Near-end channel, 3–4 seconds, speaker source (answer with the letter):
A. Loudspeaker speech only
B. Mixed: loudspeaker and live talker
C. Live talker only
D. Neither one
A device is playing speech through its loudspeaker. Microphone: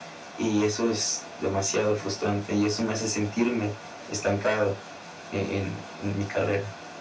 A